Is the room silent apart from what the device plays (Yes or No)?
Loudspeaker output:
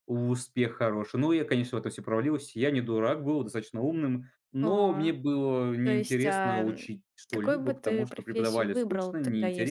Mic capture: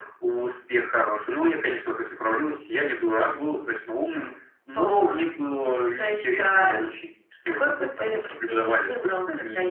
Yes